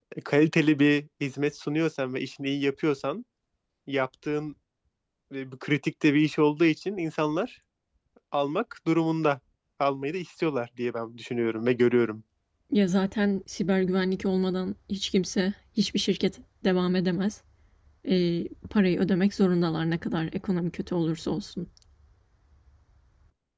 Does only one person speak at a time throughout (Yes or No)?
Yes